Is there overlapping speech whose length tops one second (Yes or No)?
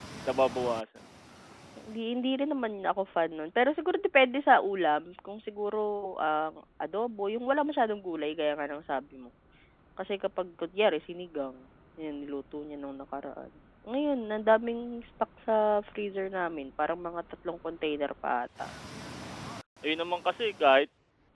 No